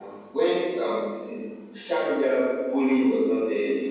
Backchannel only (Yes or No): Yes